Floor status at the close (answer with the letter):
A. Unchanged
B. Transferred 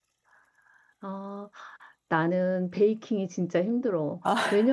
A